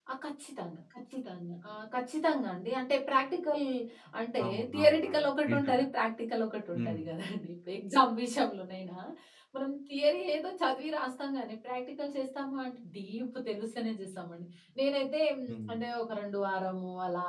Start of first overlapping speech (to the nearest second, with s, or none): 4 s